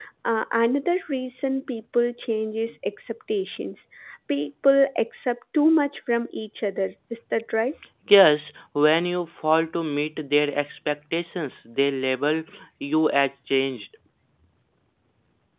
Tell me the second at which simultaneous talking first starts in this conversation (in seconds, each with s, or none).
none